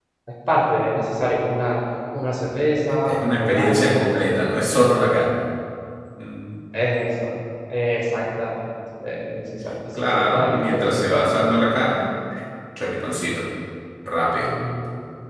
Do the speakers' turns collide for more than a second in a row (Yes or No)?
Yes